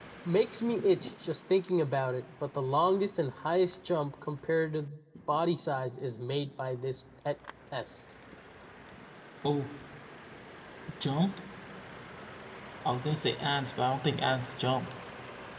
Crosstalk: none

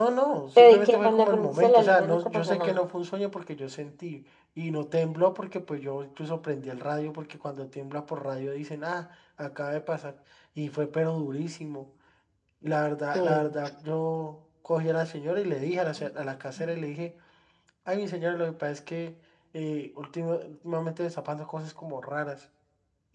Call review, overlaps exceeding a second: present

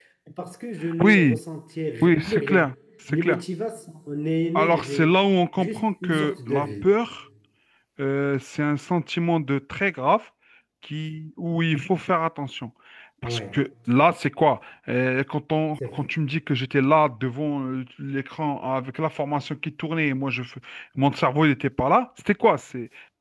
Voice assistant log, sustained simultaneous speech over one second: present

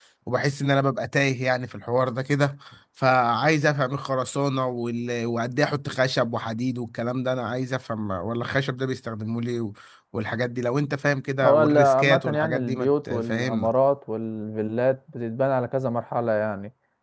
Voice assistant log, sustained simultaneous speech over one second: present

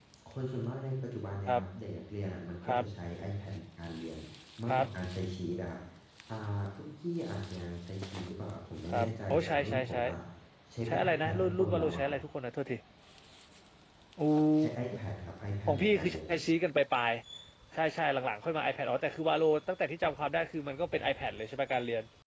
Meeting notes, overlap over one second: present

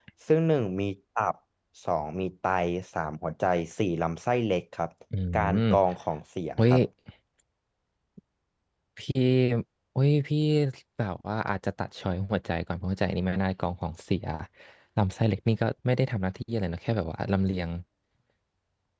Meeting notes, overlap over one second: none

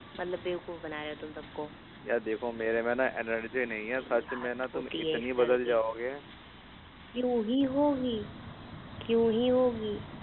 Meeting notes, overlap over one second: present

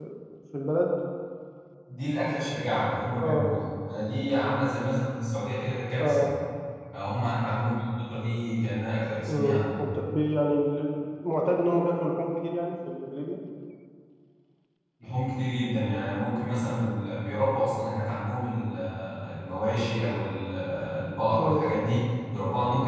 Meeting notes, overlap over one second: none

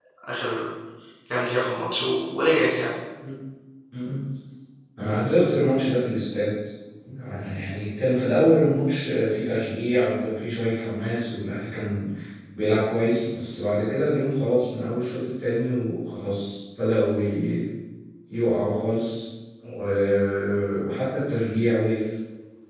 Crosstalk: none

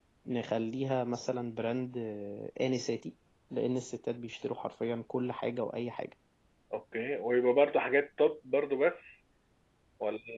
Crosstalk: none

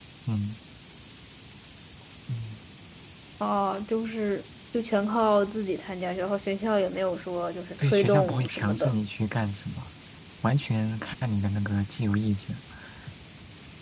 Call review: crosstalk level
present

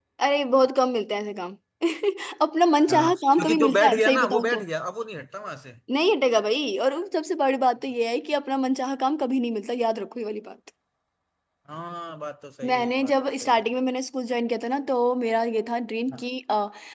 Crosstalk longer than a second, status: present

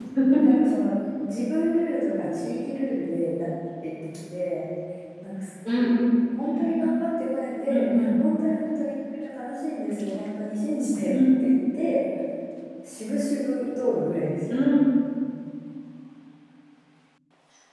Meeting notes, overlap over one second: none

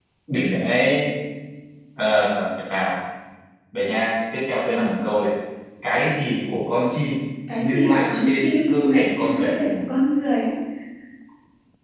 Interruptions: present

